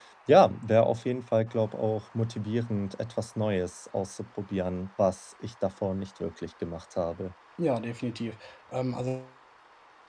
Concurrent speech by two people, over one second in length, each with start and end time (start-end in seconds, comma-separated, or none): none